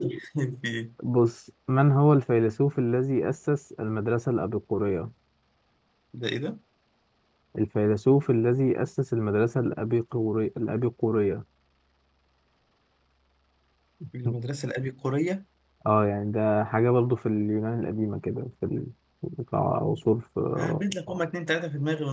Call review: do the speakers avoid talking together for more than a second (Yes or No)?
Yes